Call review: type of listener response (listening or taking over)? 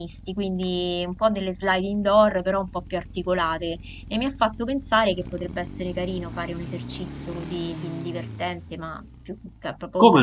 listening